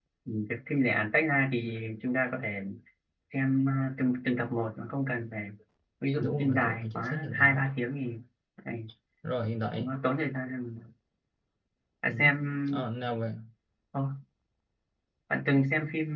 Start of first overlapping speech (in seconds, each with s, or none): 6.2 s